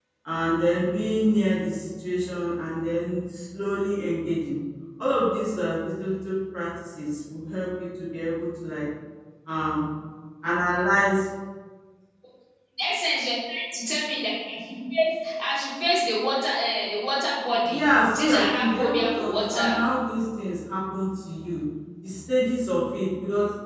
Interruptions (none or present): present